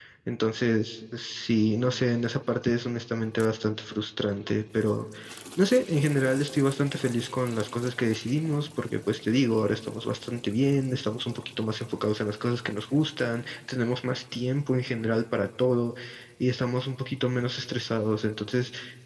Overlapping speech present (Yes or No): No